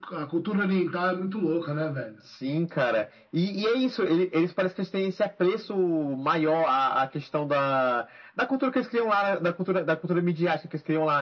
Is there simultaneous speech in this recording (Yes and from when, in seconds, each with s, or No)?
No